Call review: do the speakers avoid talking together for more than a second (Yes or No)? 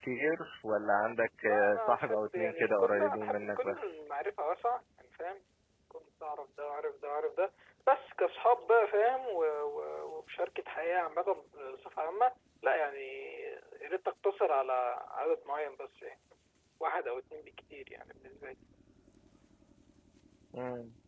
No